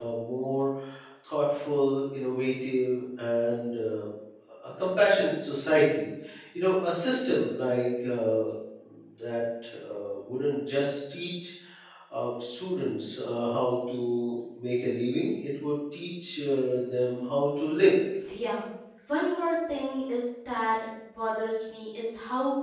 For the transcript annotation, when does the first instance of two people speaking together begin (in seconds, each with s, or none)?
none